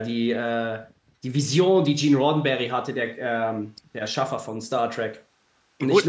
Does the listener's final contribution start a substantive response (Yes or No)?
Yes